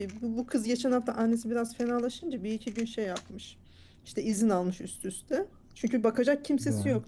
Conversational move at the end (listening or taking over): listening